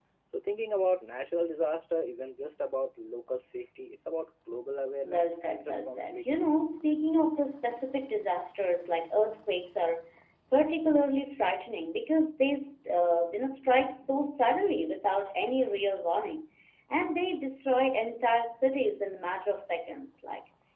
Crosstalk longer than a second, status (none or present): present